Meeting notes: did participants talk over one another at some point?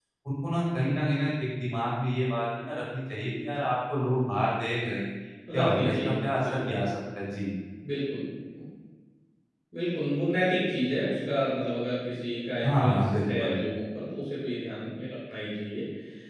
Yes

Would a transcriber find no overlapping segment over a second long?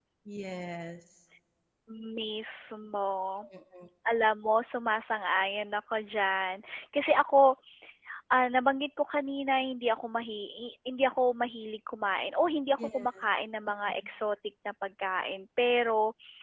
Yes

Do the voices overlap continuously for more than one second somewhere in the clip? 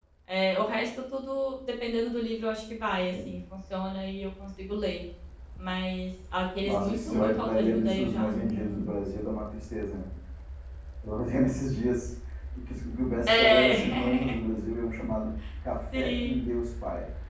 Yes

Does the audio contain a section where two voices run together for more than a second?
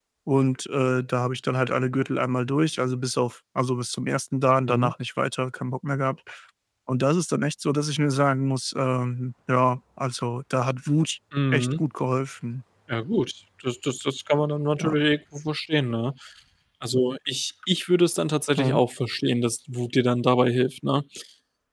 No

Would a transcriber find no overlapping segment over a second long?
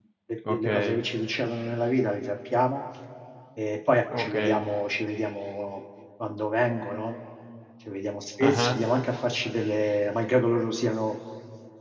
Yes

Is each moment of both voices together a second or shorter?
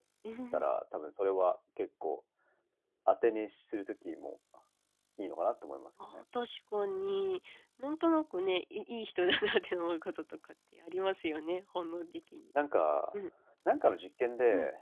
Yes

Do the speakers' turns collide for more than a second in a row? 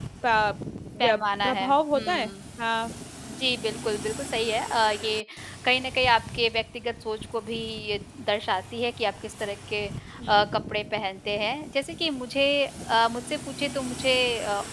Yes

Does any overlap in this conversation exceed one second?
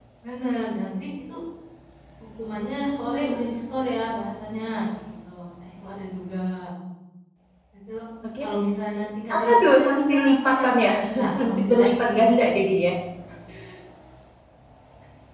Yes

